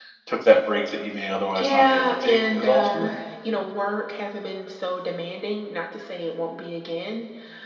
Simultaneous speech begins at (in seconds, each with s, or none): 1.5 s